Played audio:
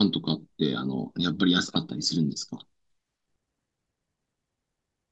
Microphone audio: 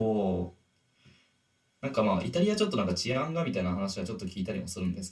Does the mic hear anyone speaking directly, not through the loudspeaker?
Yes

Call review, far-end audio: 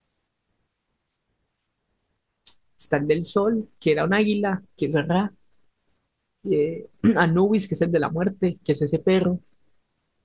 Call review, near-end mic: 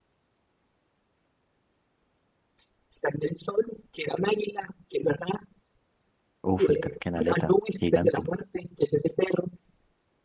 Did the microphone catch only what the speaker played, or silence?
No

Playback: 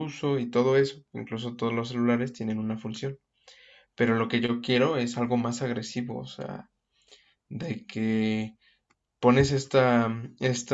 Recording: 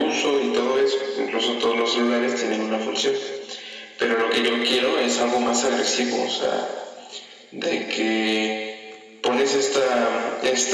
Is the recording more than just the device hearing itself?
No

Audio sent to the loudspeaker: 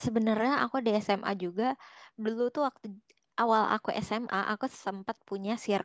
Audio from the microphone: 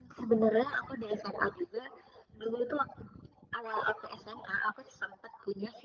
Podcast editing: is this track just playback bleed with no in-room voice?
Yes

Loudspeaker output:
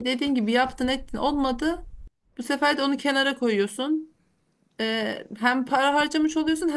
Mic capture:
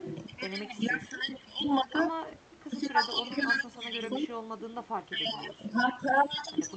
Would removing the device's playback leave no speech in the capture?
No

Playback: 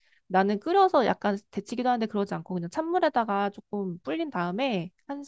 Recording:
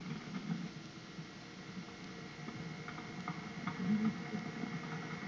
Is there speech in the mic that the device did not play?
No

